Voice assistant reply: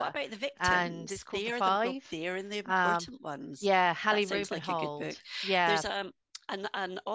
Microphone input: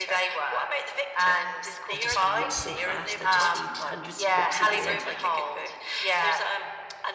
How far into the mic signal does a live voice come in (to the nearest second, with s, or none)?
2 s